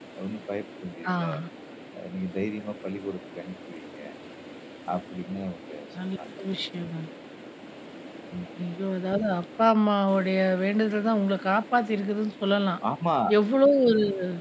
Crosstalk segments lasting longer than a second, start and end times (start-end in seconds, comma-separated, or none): none